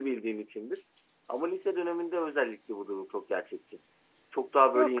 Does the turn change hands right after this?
Yes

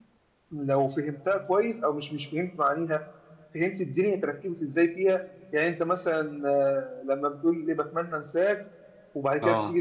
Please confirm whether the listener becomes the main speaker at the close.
No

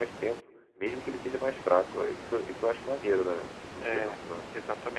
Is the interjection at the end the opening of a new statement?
Yes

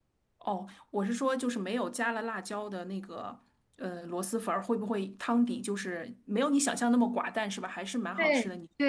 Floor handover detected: Yes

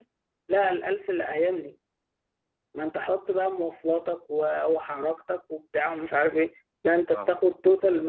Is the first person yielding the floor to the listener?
No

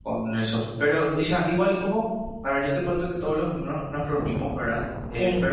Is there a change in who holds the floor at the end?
No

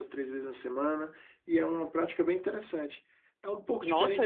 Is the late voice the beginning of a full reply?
Yes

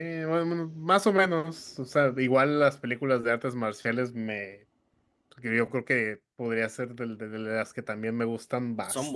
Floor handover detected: No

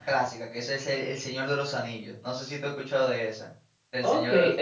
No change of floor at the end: No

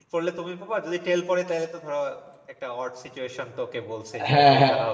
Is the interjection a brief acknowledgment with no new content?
No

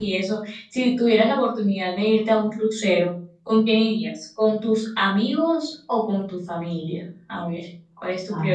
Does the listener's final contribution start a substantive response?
Yes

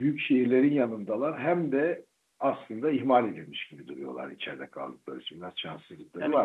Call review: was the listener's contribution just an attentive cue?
No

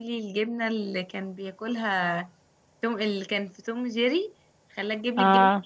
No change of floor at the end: Yes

